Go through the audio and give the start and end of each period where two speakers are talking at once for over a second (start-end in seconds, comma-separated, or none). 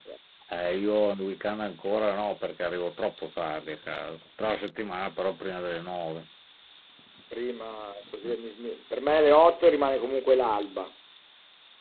none